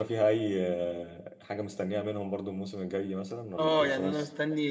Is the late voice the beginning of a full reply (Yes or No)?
Yes